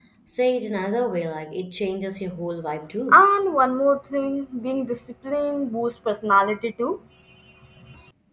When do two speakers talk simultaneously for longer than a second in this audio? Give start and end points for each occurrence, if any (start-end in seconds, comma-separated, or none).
none